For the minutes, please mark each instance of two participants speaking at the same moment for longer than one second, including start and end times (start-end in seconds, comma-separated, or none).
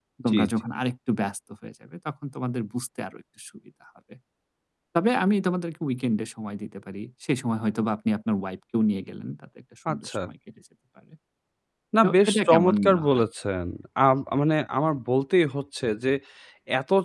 12.0-13.2